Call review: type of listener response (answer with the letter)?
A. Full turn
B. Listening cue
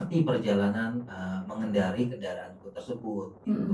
A